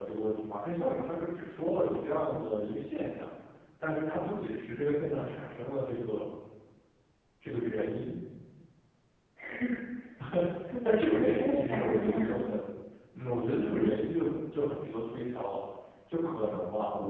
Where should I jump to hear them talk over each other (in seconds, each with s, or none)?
10.8 s